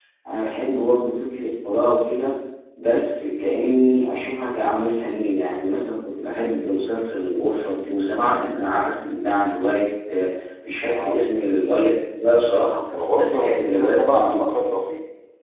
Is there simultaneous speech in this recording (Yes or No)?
Yes